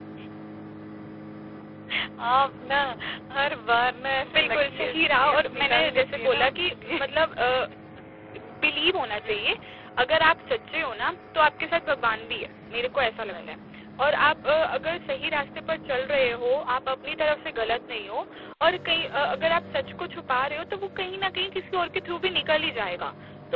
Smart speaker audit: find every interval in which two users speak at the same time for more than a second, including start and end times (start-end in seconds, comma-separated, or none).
4.4-7.0